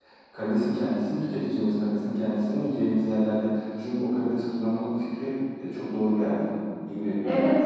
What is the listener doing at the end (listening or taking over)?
taking over